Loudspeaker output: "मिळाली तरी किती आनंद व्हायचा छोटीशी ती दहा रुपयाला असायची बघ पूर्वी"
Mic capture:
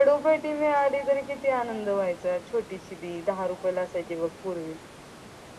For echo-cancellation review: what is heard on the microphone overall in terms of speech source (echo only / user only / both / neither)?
echo only